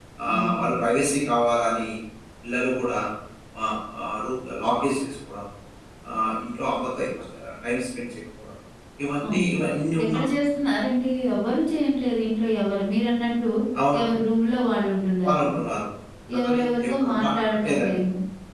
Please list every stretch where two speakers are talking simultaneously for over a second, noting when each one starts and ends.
16.4-18.0

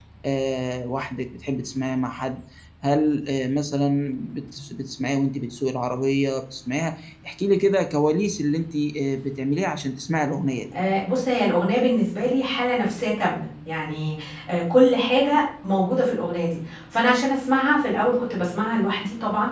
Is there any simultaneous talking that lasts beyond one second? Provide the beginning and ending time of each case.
none

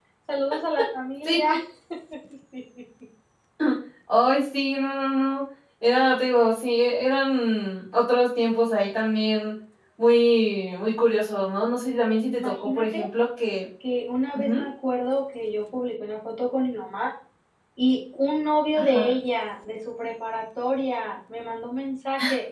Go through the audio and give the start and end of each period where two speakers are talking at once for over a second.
11.8-13.1

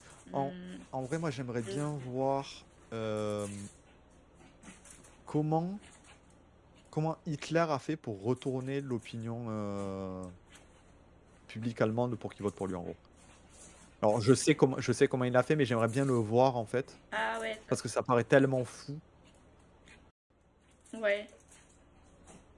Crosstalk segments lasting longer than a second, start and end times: none

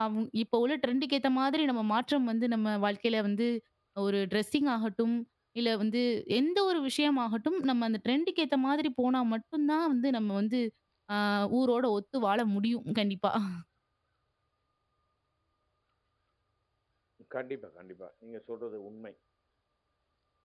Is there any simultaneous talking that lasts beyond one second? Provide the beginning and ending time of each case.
none

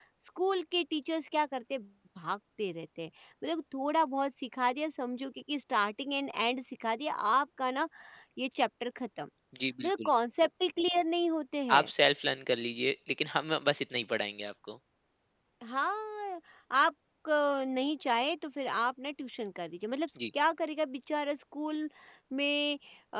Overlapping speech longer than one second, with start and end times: none

